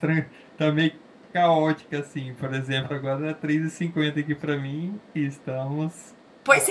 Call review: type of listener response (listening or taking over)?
taking over